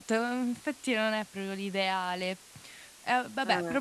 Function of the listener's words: listening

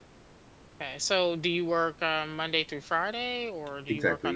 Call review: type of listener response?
taking over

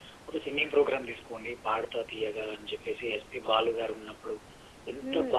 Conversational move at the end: listening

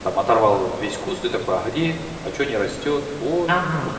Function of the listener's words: taking over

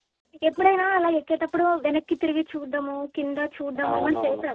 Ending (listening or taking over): taking over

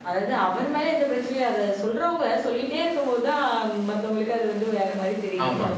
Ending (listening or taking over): taking over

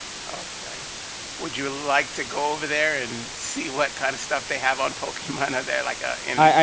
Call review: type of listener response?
taking over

